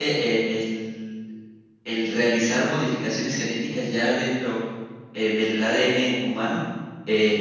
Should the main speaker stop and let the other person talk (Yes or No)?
No